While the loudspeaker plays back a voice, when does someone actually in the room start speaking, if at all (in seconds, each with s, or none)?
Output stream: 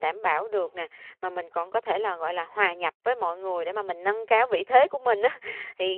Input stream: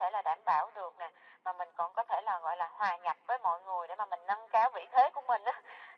none